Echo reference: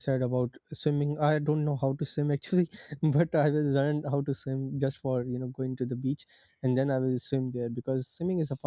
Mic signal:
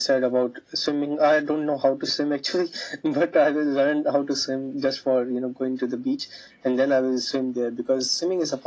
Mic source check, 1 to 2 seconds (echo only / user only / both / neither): echo only